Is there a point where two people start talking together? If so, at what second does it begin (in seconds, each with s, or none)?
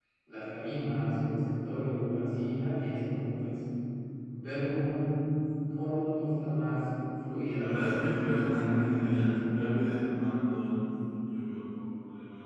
7.6 s